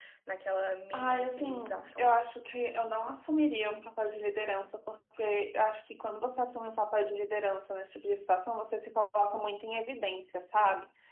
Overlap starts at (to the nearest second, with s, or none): 1 s